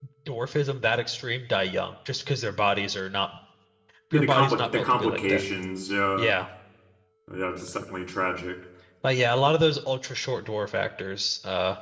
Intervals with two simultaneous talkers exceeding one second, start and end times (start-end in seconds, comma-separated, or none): 4.1-5.5